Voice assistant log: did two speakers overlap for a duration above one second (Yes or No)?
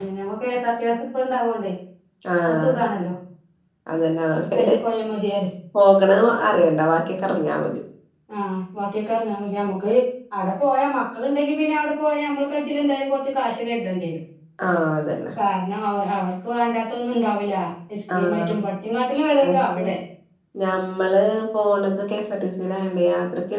No